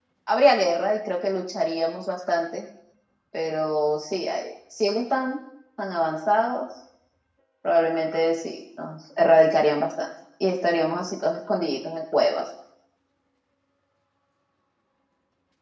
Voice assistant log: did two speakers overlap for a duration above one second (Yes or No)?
No